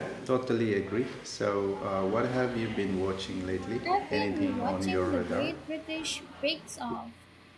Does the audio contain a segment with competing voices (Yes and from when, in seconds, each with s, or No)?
Yes, from 3.8 s